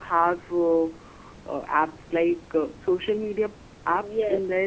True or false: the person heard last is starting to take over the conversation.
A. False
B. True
B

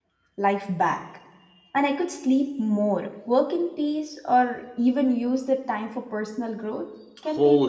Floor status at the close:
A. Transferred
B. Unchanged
A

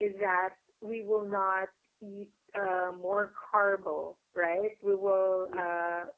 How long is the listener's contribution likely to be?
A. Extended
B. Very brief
B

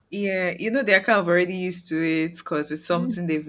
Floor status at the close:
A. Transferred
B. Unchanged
B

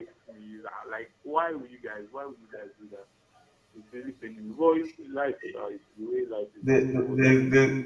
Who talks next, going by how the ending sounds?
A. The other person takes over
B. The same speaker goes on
A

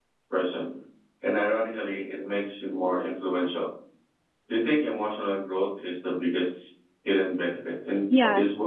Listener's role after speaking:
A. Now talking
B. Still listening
A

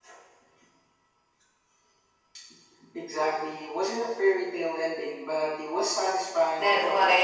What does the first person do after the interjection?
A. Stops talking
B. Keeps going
A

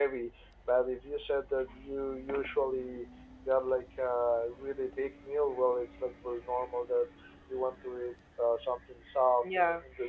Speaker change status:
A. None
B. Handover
B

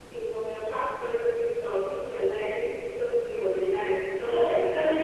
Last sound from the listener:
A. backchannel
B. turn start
B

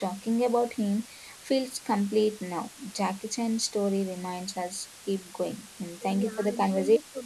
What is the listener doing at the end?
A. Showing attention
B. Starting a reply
B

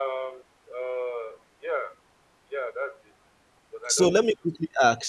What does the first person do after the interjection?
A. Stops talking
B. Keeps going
A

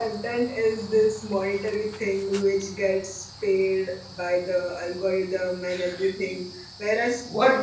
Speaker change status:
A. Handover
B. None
A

